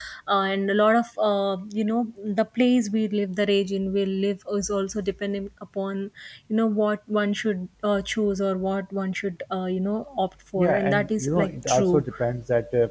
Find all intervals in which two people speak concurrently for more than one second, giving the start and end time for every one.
10.6-12.0

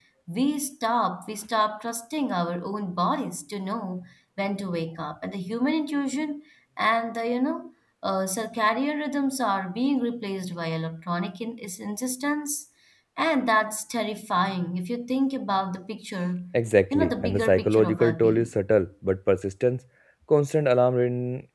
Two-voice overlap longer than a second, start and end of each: 16.9-18.5

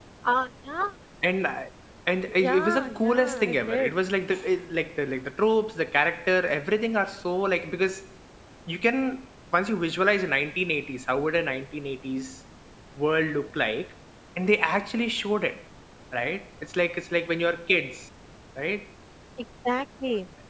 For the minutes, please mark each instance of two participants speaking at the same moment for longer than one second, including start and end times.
2.3-3.9

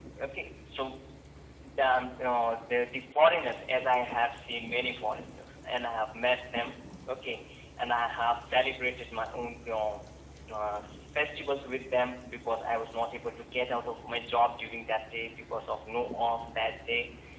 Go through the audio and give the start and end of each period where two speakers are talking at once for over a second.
none

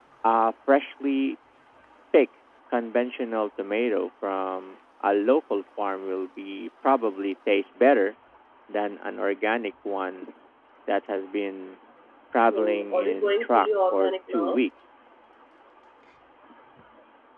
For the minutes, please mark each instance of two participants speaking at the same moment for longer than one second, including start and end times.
12.5-14.6

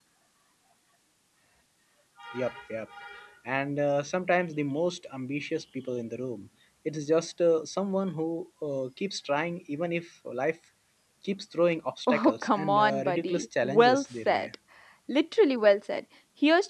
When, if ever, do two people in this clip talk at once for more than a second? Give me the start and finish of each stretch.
12.1-14.5

